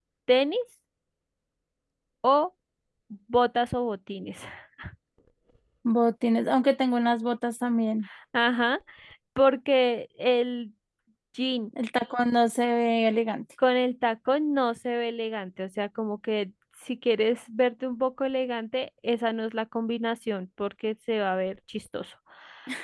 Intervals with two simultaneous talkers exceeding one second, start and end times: none

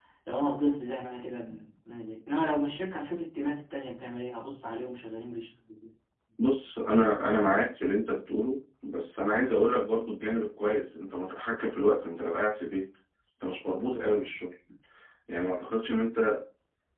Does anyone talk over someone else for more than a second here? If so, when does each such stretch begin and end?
none

